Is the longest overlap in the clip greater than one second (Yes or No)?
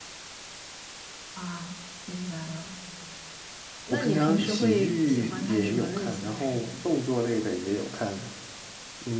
Yes